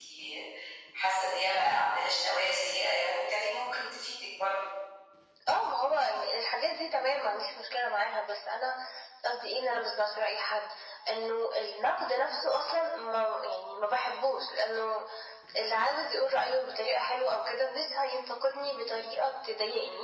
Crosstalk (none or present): none